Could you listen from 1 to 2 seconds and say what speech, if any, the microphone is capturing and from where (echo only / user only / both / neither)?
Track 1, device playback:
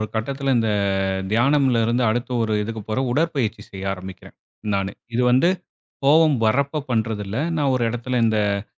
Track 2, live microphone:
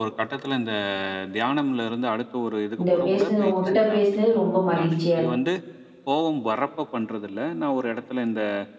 echo only